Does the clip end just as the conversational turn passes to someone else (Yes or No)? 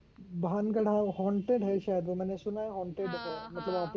No